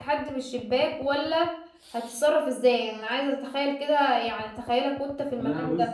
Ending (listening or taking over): taking over